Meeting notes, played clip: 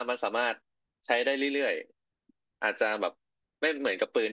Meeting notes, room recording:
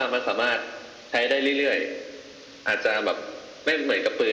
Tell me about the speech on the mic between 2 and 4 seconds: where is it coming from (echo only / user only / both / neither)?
echo only